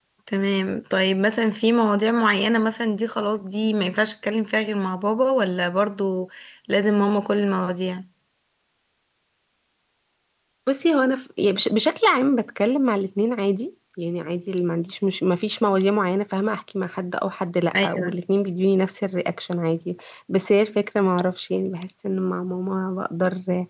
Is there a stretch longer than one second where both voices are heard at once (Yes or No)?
No